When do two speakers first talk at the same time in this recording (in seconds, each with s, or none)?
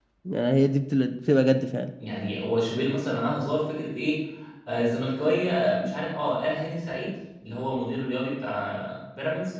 none